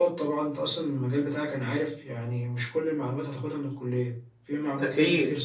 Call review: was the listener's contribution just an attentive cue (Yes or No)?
No